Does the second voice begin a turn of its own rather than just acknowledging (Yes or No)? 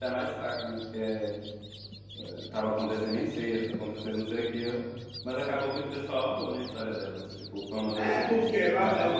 Yes